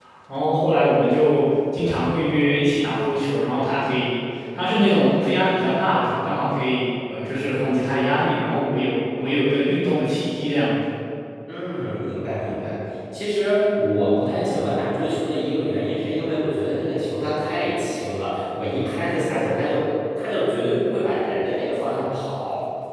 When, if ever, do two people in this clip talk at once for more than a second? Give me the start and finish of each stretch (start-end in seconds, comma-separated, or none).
none